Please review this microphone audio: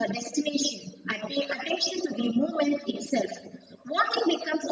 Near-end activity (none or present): none